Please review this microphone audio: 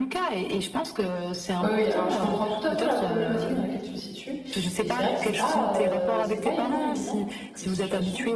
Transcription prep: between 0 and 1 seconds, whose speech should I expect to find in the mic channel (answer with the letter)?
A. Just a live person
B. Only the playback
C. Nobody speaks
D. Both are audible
B